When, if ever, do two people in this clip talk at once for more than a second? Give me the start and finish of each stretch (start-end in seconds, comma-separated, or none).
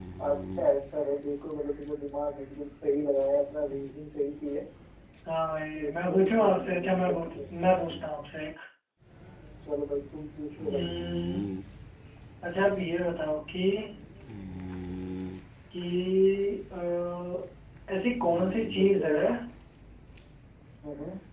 5.8-7.4